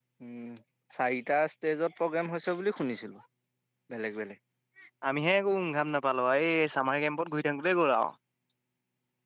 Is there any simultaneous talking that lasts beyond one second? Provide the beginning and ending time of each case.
none

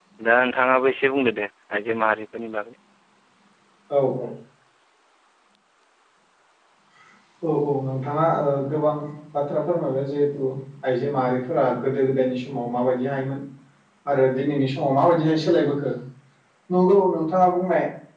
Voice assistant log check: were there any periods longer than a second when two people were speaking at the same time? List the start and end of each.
none

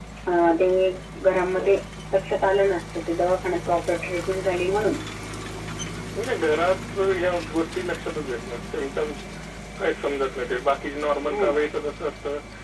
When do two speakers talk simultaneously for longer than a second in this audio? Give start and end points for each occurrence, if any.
none

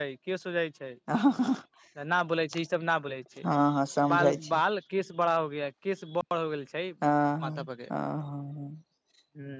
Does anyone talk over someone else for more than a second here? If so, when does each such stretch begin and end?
none

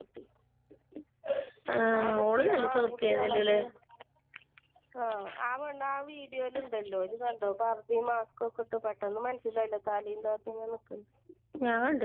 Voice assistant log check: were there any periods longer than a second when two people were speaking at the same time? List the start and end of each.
2.0-3.5

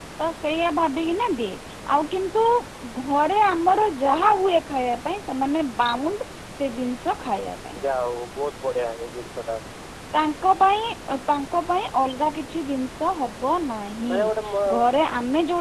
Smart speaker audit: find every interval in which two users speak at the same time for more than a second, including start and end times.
none

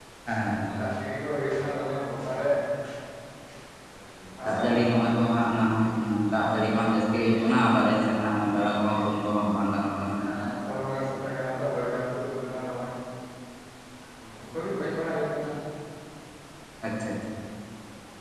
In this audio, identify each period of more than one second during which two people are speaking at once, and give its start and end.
none

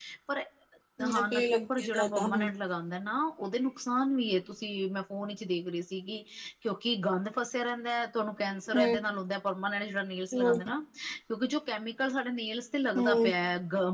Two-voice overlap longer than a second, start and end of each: 1.1-2.5

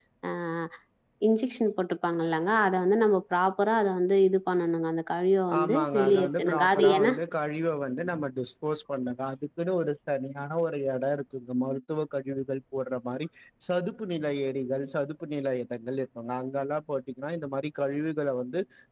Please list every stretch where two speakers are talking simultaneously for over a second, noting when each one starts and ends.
5.6-7.1

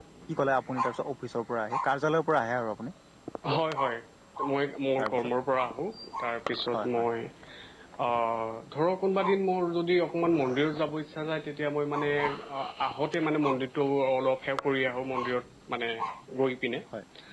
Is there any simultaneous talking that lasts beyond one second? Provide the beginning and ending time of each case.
none

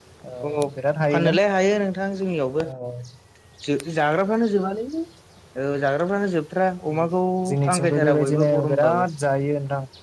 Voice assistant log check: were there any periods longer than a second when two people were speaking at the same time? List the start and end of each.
7.7-9.0

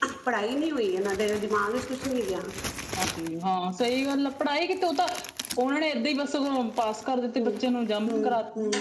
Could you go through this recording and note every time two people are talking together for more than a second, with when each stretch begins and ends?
none

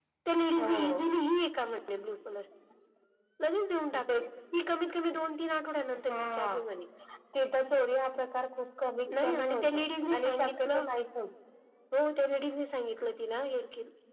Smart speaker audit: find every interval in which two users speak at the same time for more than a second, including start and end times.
9.2-10.8

